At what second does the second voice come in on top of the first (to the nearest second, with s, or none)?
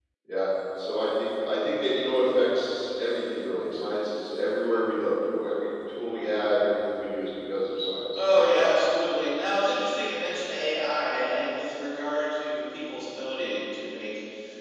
none